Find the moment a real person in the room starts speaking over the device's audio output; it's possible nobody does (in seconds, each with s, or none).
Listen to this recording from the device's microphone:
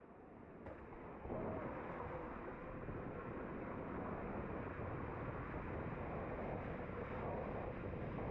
none